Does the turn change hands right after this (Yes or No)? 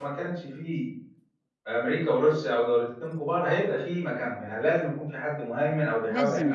Yes